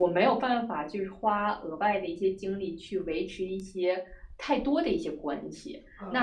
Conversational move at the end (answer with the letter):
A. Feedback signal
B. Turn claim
B